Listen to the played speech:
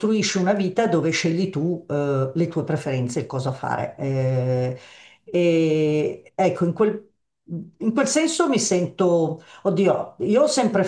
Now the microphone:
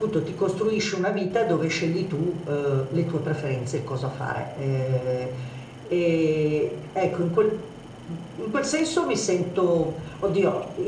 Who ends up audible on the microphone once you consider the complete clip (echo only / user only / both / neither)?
echo only